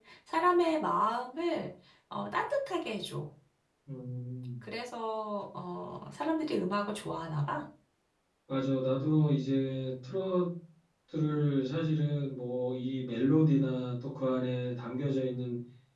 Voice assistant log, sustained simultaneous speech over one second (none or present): none